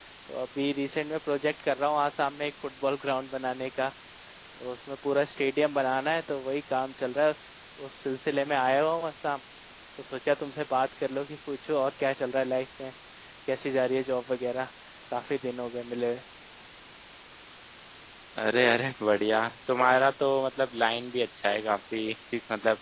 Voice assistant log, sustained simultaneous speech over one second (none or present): none